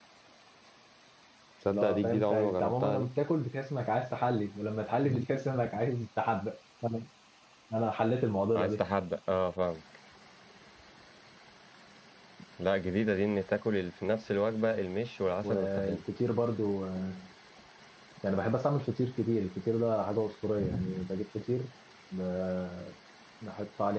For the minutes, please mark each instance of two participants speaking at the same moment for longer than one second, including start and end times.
1.7-3.1

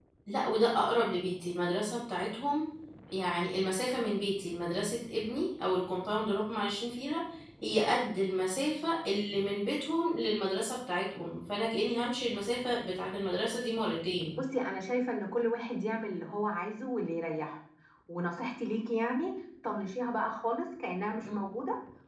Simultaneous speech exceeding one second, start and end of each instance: none

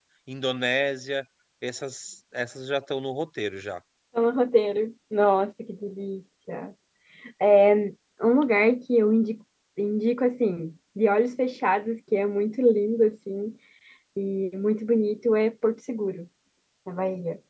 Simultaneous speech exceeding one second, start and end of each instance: none

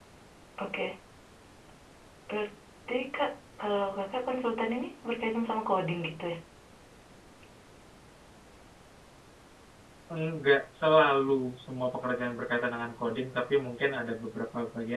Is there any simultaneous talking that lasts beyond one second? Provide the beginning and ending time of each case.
none

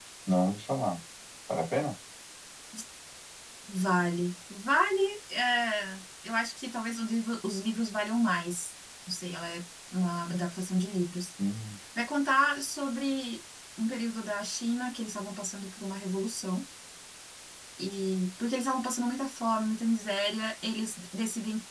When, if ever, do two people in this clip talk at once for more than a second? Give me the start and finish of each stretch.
none

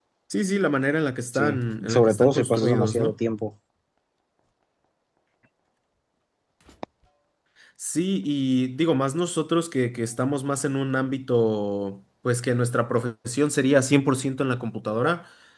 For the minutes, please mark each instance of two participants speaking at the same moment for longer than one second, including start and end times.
1.3-3.1

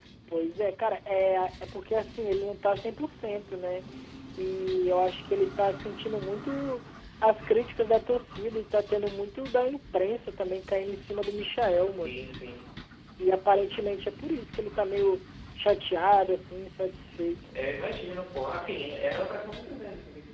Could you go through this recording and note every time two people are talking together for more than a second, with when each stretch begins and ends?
none

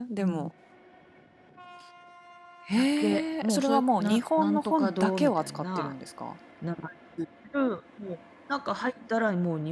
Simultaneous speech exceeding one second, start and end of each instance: 2.8-5.9

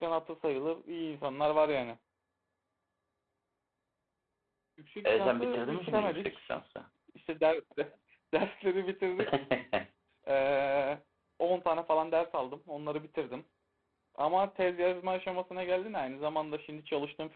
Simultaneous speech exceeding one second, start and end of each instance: 5.0-6.5

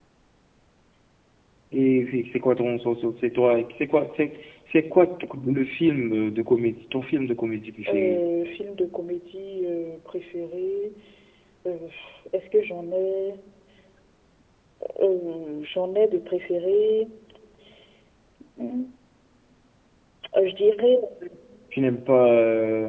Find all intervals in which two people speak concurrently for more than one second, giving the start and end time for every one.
none

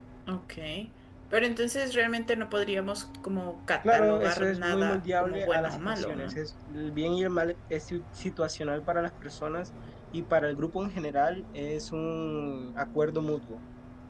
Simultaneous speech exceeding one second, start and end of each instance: 3.8-6.4

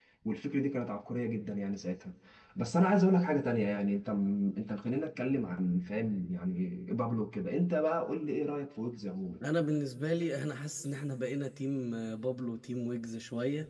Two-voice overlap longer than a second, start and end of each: none

